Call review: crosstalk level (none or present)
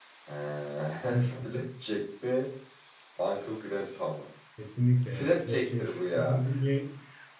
present